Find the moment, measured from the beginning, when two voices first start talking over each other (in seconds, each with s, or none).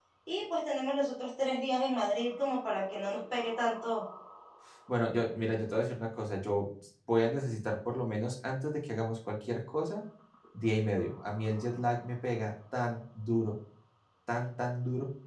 none